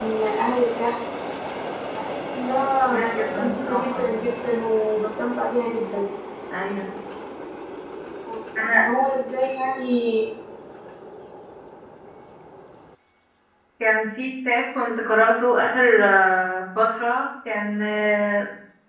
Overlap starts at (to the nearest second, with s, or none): 3 s